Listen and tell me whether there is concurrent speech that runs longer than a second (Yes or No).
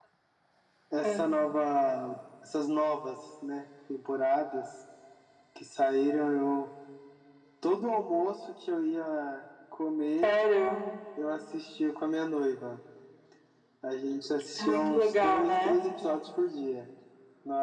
Yes